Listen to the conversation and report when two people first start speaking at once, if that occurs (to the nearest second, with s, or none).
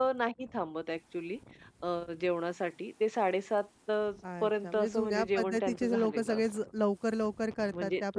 4 s